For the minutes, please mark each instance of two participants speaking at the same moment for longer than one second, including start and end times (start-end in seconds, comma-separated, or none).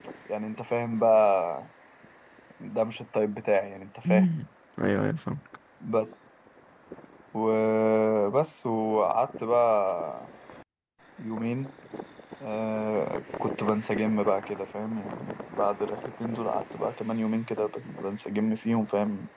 none